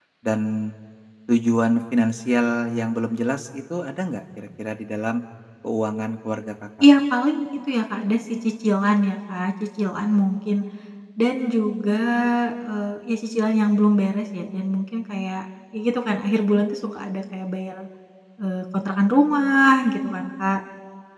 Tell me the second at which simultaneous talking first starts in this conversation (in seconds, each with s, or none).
none